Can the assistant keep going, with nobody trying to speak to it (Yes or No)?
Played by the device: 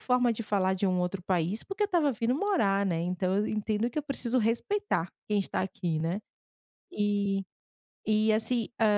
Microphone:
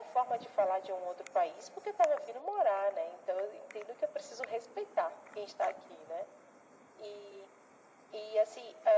Yes